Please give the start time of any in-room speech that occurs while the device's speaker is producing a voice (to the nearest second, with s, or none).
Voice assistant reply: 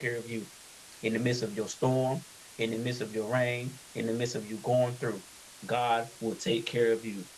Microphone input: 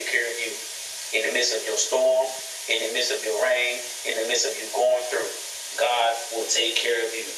none